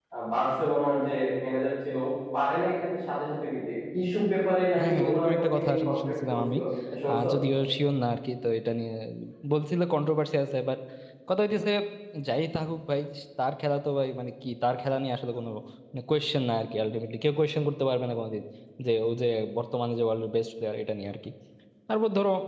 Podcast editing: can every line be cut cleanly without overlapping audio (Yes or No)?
No